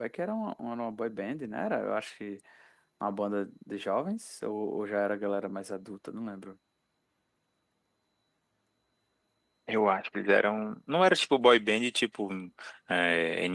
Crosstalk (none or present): none